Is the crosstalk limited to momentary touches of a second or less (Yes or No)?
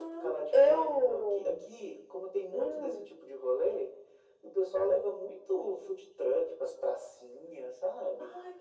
No